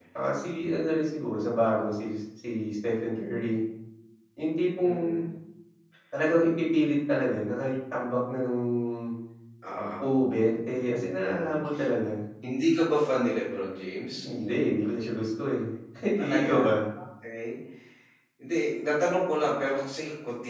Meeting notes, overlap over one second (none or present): none